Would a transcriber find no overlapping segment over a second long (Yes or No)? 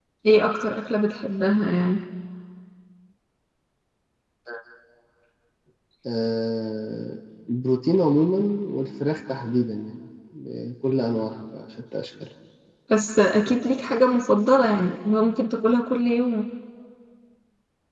Yes